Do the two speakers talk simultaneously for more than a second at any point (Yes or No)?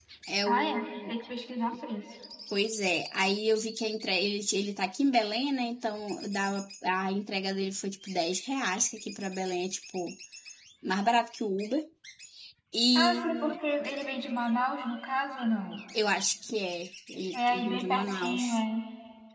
Yes